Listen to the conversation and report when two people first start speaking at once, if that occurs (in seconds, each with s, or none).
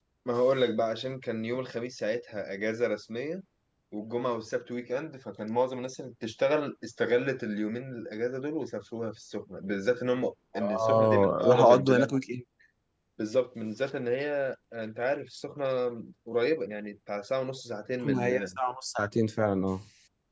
10.8 s